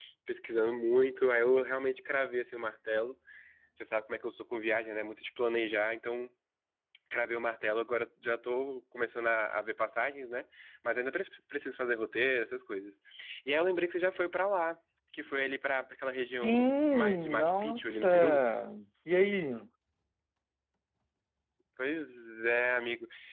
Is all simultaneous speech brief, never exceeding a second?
No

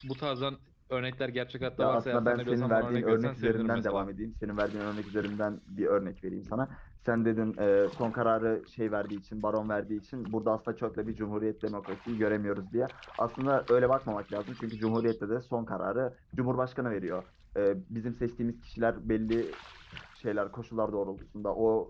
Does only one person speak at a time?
No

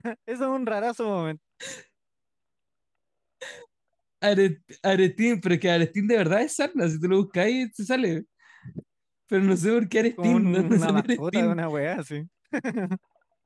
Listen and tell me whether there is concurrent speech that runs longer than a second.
Yes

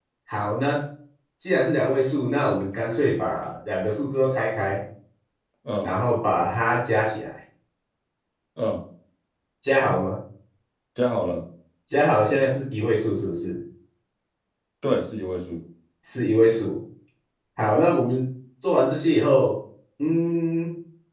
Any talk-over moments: No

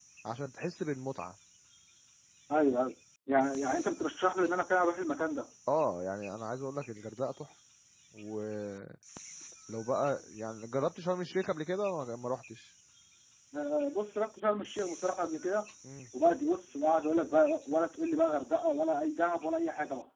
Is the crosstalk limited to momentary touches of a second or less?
Yes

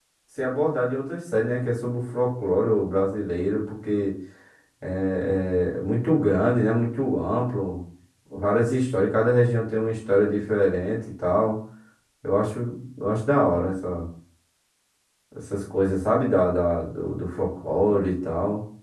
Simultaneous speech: No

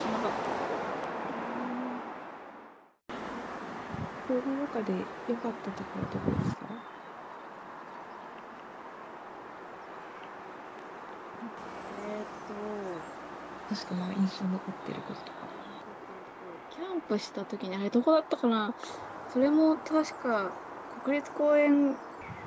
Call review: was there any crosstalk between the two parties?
No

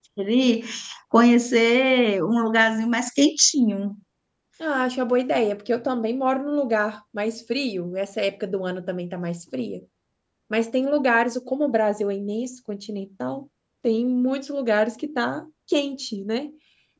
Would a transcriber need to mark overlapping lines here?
No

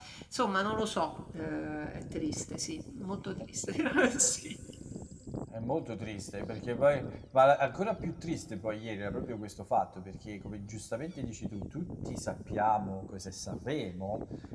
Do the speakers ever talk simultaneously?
No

